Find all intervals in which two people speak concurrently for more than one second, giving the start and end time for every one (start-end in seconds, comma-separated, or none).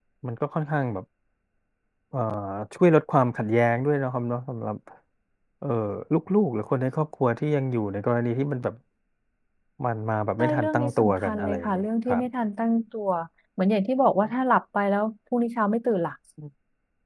10.4-12.2